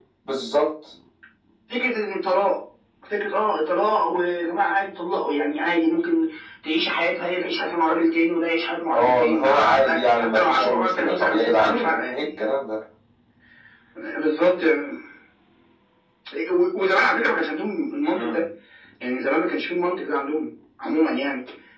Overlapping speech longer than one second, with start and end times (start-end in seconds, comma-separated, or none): 8.9-12.3